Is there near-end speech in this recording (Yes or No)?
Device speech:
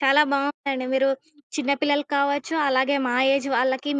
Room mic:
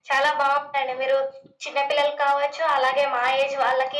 No